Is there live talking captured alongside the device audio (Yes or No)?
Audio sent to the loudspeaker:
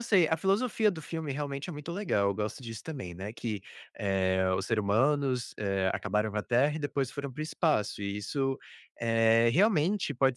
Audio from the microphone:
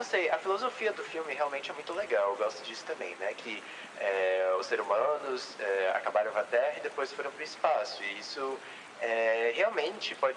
No